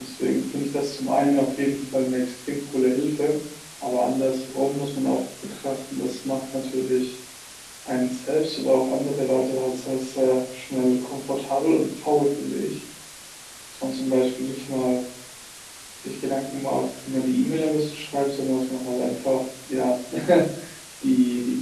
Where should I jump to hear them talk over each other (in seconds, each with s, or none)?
none